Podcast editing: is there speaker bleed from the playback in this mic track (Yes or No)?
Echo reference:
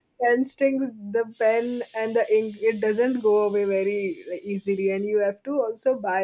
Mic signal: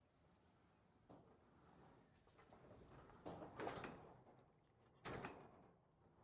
No